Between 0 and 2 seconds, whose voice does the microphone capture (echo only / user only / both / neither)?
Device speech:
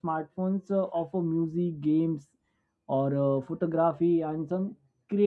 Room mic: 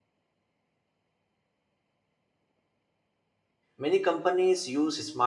neither